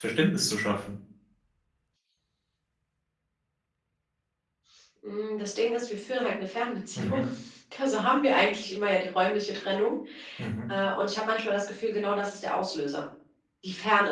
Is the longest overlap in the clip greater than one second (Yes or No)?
No